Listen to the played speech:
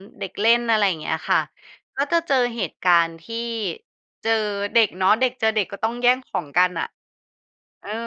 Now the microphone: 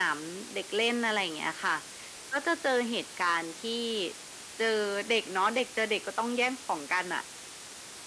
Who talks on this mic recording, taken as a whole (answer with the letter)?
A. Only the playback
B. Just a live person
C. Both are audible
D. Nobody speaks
A